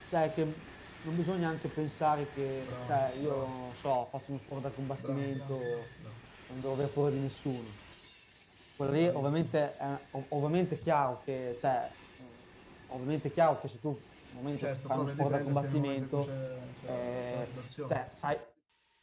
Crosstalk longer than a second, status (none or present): present